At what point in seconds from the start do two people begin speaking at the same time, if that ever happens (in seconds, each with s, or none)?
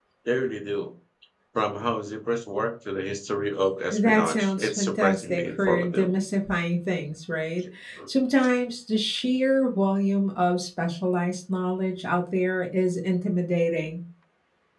3.9 s